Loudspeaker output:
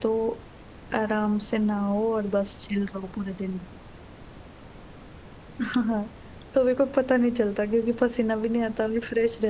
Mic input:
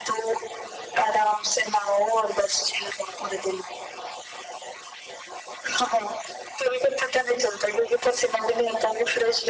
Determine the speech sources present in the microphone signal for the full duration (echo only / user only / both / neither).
echo only